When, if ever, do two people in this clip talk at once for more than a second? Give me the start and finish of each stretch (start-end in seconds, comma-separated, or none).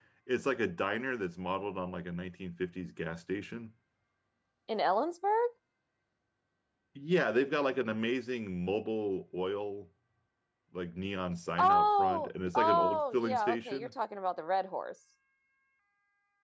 11.6-13.9